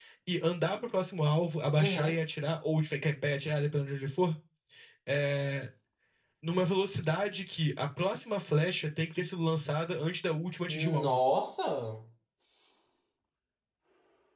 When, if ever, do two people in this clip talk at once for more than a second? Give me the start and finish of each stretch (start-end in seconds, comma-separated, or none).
none